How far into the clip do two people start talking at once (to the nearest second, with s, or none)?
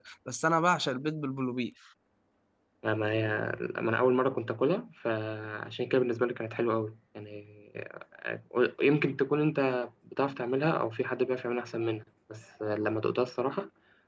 none